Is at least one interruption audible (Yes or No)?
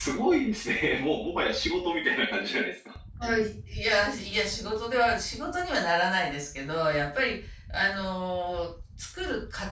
No